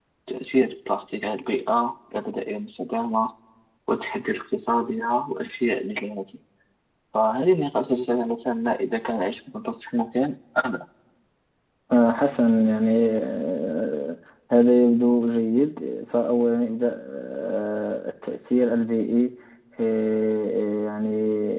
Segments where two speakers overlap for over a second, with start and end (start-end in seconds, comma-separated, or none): none